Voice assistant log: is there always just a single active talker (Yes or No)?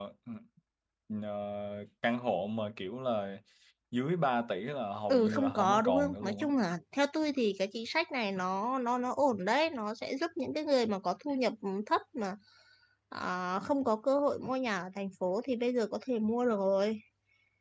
No